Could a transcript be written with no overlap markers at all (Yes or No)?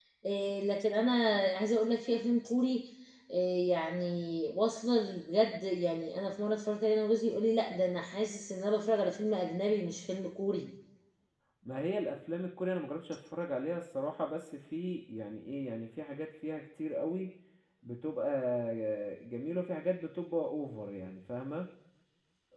Yes